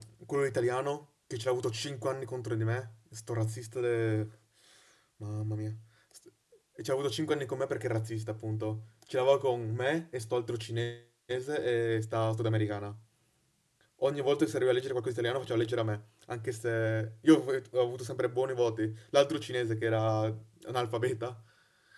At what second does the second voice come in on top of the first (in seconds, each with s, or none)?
none